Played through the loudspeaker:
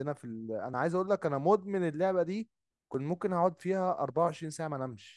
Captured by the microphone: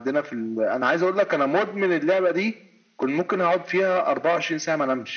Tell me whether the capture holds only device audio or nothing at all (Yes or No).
Yes